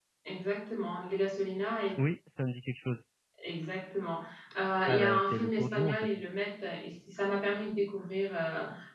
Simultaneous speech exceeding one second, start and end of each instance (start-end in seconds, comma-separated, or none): 4.9-6.2